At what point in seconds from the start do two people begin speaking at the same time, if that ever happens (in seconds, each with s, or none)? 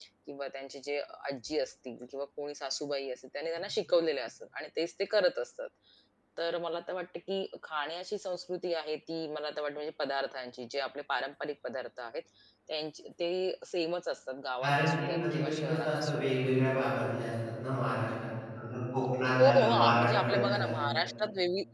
14.6 s